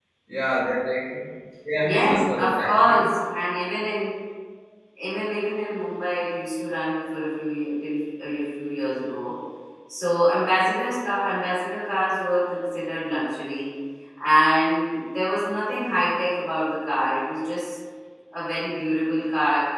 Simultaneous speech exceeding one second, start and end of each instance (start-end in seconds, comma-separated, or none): 1.8-3.1